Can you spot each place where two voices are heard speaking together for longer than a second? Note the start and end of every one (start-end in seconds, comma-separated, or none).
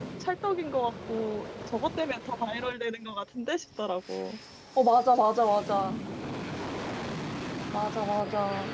none